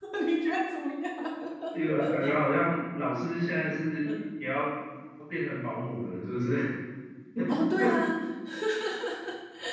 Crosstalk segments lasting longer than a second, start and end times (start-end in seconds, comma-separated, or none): none